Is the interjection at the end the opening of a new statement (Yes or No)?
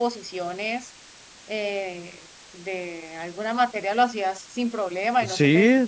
Yes